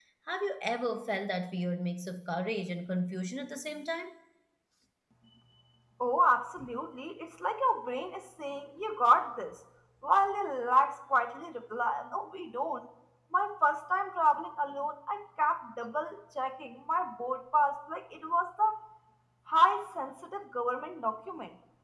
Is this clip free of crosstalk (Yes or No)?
Yes